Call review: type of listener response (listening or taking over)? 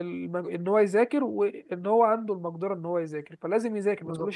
taking over